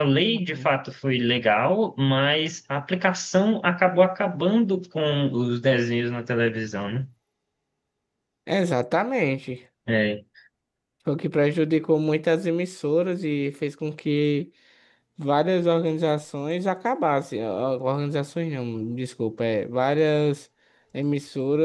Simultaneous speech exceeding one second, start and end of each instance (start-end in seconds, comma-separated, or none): none